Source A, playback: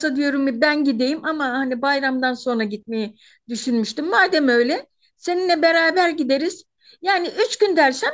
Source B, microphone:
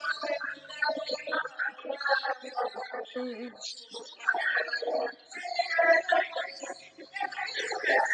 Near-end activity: present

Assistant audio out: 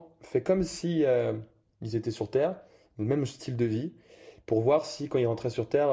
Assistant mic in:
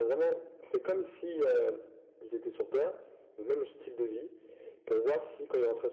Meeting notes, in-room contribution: none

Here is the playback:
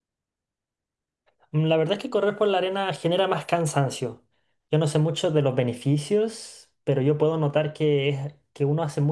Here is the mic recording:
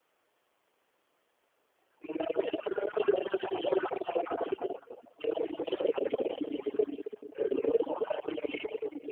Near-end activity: none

